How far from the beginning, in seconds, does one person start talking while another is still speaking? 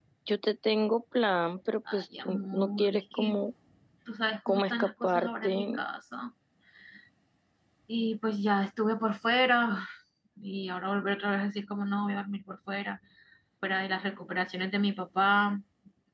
1.9 s

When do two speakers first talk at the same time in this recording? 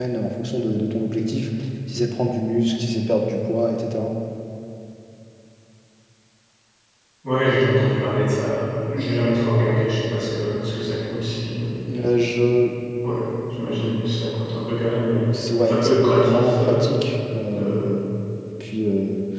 15.6 s

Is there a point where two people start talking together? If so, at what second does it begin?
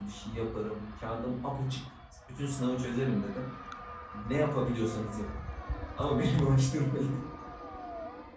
none

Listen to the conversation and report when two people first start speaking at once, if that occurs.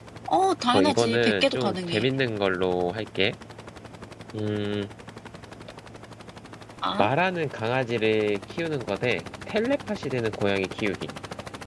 0.7 s

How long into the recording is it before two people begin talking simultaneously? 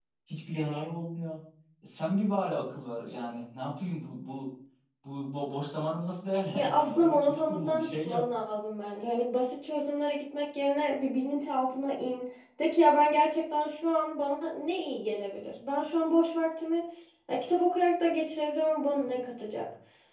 6.5 s

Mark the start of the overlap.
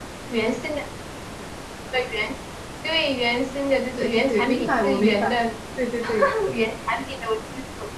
4.0 s

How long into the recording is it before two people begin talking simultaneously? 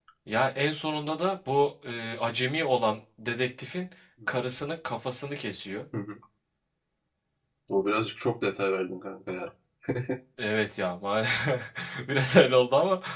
none

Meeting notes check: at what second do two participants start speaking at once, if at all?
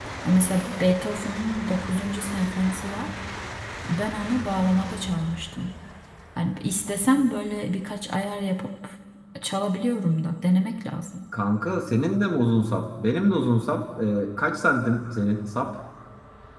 none

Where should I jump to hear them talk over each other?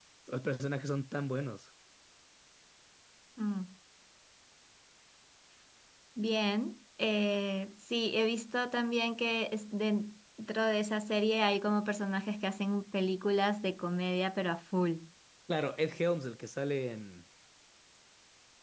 none

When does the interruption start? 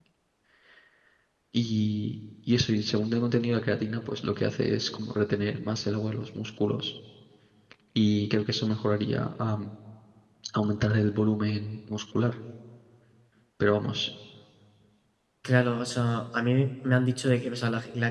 none

